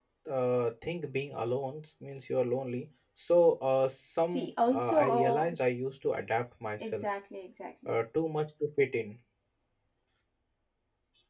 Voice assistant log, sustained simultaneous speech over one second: present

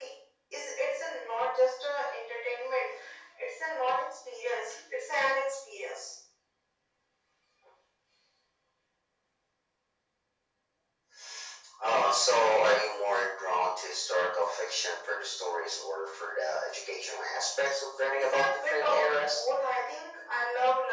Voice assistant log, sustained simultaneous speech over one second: present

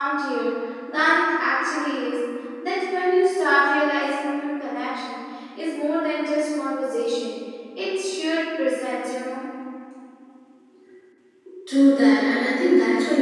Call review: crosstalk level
none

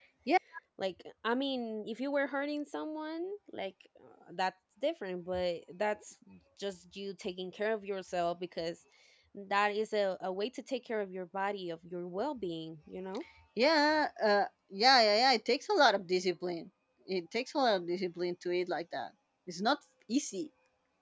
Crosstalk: none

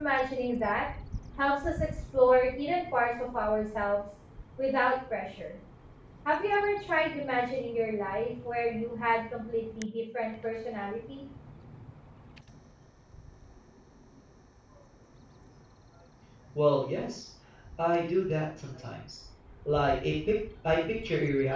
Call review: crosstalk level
none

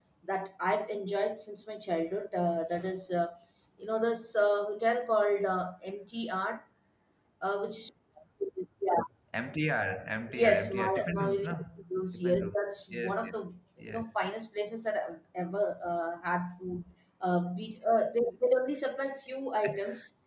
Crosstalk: present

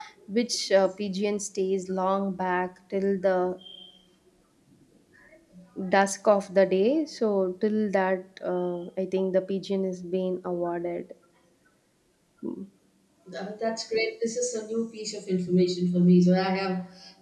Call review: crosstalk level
none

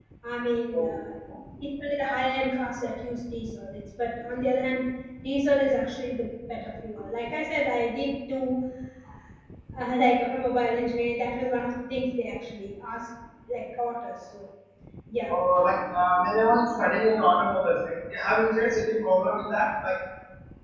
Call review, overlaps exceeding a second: none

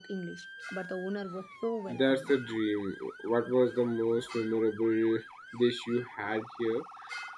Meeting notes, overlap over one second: none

